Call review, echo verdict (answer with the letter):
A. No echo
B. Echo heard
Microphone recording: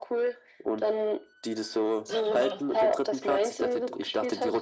B